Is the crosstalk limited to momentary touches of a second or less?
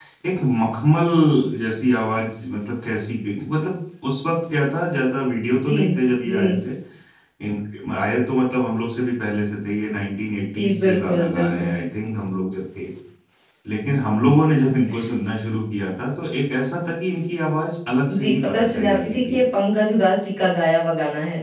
No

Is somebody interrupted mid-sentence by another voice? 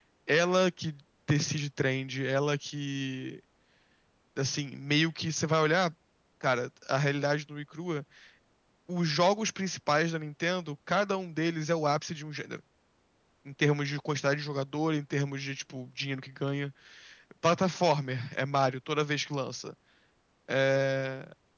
No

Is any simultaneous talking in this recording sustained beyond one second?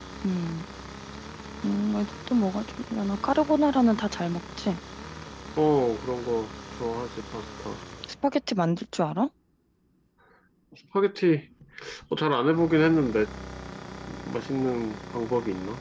No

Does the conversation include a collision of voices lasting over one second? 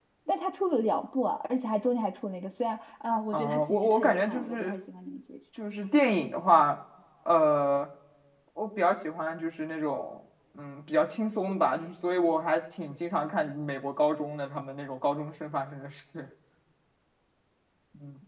Yes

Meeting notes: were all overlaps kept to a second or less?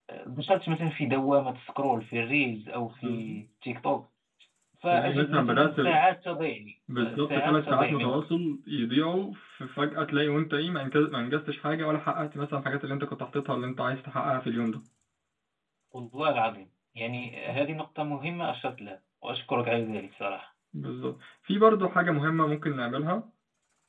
No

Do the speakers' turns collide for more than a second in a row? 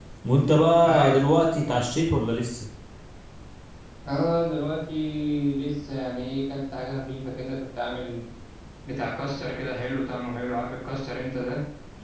No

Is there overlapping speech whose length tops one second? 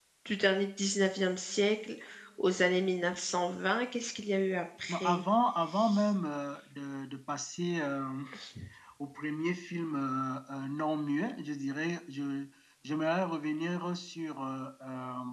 No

